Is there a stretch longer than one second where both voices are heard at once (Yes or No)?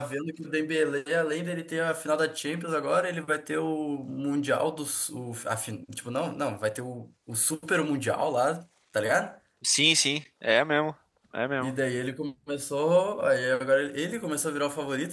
No